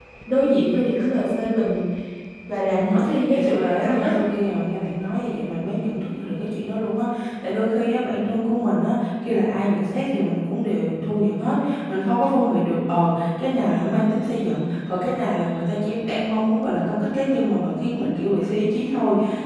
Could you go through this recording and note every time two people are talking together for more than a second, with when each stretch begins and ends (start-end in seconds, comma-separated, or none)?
2.7-4.1